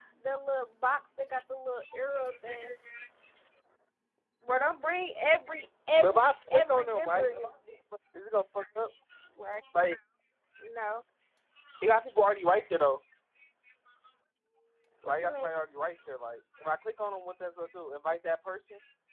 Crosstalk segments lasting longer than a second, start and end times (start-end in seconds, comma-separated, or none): 6.0-7.3